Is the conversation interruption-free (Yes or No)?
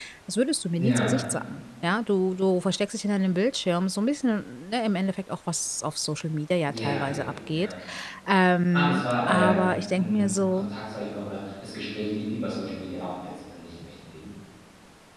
No